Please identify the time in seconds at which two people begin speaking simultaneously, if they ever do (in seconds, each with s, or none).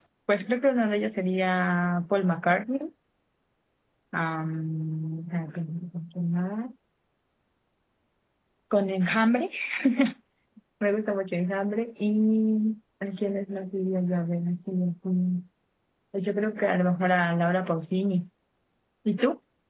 none